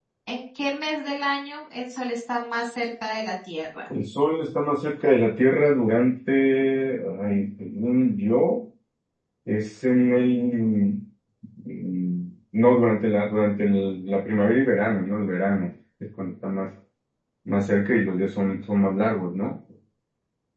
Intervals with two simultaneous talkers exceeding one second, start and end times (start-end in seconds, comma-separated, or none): none